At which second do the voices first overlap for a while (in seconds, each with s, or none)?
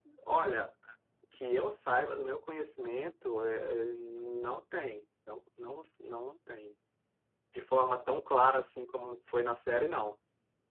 none